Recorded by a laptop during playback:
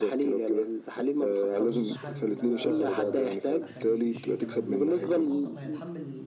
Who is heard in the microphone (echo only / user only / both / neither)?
both